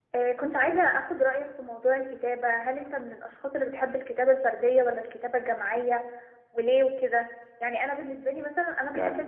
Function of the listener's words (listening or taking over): listening